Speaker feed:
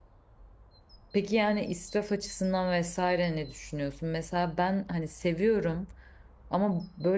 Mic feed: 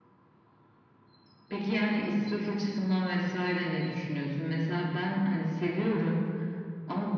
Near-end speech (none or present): none